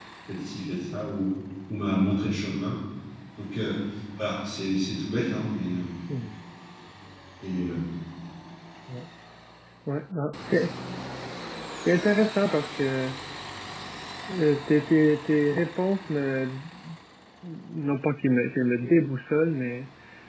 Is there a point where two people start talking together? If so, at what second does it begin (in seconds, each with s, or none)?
none